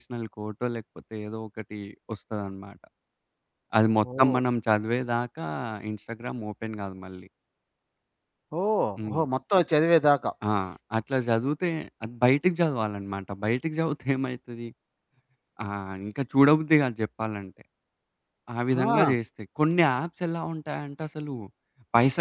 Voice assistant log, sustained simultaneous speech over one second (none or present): none